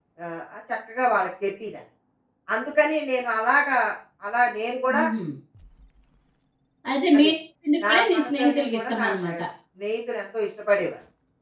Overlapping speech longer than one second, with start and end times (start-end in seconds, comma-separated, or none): 7.9-9.3